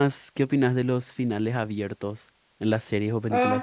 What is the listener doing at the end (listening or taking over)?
taking over